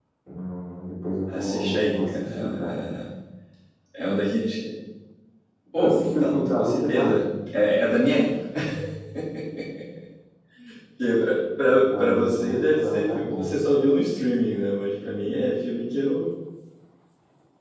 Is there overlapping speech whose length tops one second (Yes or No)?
Yes